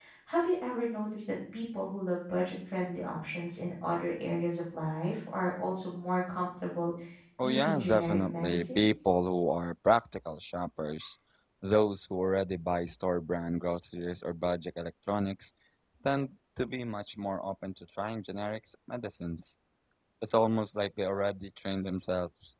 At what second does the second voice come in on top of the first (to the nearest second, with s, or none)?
7 s